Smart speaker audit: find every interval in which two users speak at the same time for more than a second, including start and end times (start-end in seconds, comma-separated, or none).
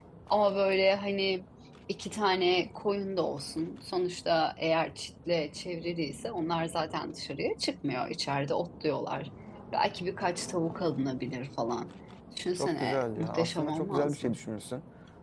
12.5-14.4